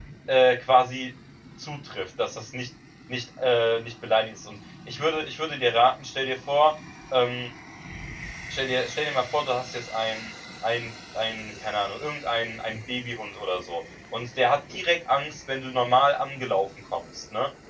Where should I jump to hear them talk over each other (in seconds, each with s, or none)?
none